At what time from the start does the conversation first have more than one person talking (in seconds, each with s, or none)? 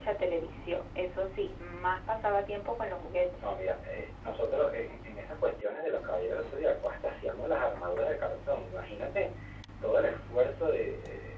none